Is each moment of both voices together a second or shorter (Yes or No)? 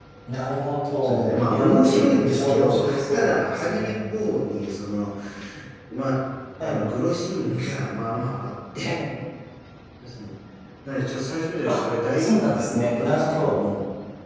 No